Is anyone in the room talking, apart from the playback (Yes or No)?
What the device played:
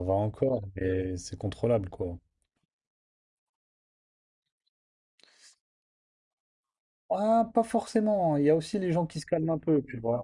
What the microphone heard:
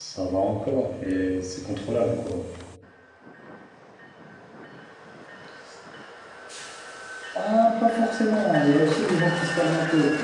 No